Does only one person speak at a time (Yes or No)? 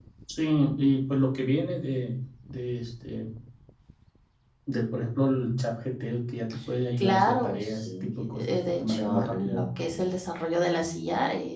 No